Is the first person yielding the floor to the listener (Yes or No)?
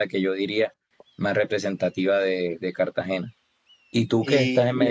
No